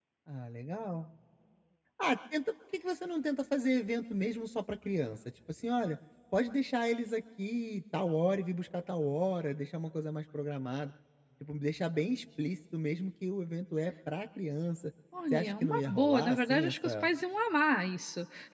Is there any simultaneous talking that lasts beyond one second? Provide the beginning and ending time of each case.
15.3-17.1

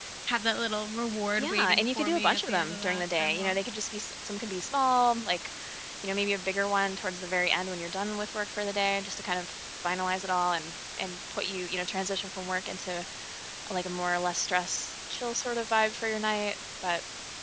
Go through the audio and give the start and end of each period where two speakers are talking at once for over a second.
1.4-3.6

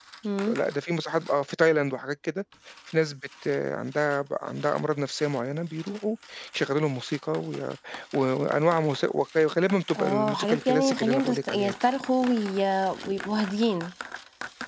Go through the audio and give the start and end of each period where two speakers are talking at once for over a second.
9.9-11.7

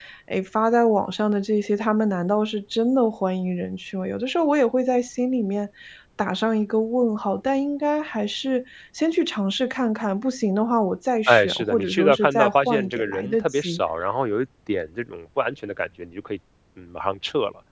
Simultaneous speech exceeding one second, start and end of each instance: 11.3-13.8

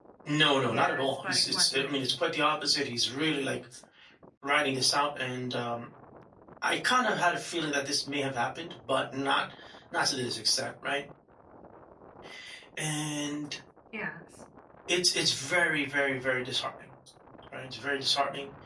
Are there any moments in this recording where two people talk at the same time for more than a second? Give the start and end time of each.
0.6-2.0

